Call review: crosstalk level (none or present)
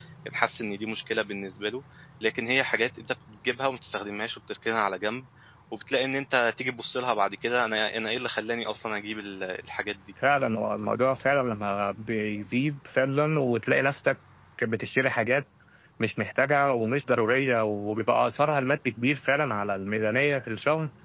none